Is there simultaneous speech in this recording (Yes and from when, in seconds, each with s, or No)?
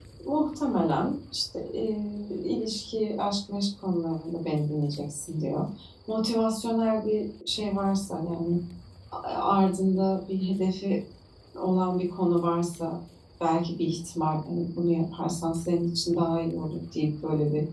No